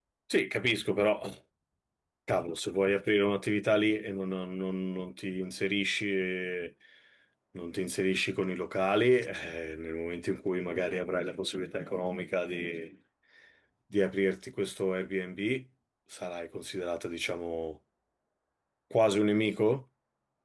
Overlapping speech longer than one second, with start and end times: none

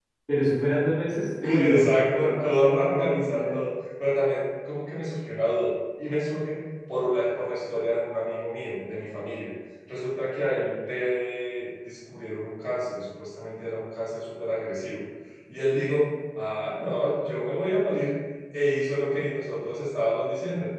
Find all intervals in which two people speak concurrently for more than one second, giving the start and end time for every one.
1.4-3.6

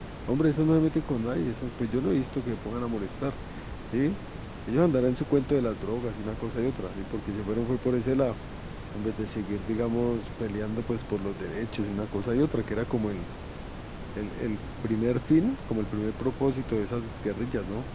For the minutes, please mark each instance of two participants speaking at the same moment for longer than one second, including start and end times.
none

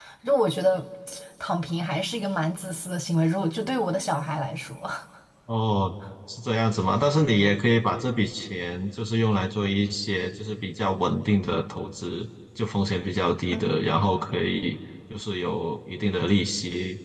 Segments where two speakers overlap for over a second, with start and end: none

